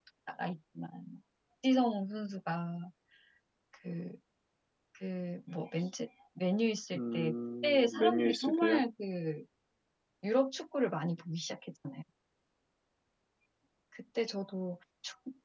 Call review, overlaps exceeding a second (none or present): present